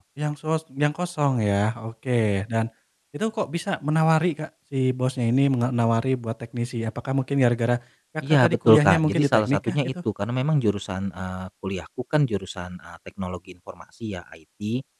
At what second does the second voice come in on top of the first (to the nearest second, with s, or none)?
8 s